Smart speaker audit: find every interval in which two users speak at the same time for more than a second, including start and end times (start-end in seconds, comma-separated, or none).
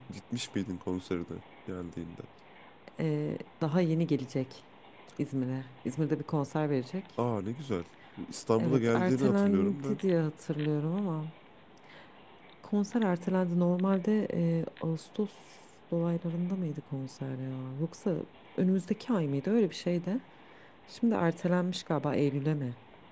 8.6-10.0